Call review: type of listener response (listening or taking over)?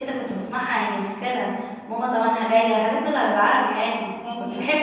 taking over